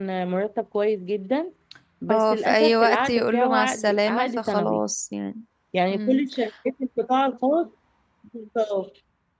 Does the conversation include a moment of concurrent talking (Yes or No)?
Yes